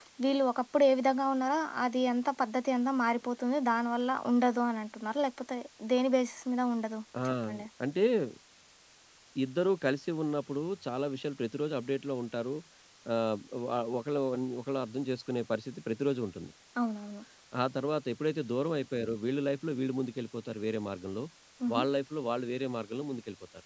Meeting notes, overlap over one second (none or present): none